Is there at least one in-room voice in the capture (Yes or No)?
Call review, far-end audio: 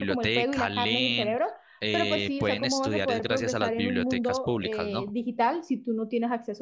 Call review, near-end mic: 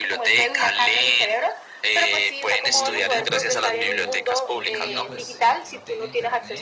Yes